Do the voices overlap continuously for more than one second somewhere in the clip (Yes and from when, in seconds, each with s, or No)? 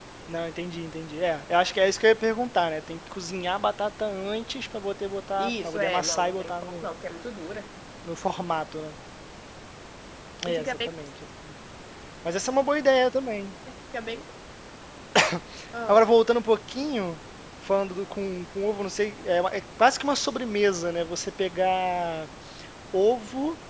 Yes, from 5.4 s